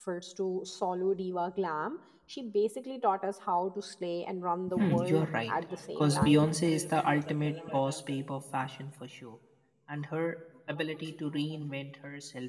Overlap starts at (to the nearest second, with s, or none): 5 s